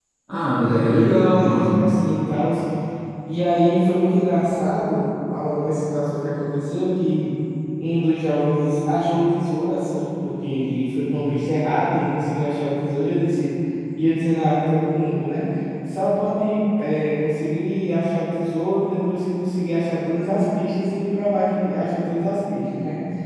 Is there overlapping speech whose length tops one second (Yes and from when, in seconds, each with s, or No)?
Yes, from 0.6 s